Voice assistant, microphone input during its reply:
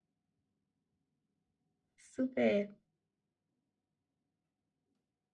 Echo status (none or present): none